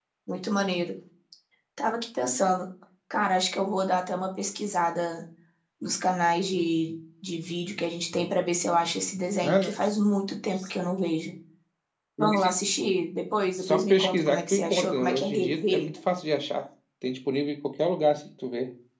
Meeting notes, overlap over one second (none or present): present